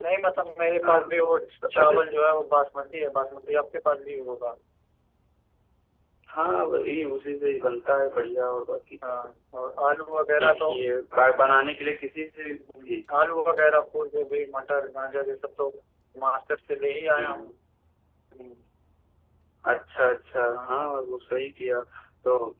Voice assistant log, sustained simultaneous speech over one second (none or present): none